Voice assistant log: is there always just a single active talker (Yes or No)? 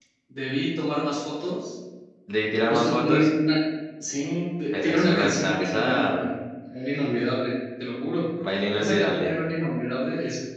No